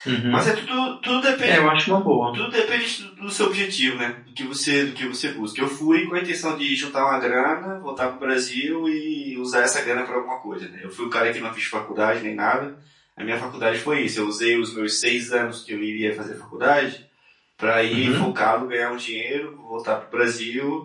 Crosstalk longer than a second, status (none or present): none